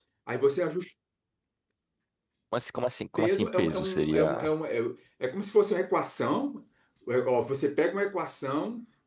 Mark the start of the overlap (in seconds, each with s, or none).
3.2 s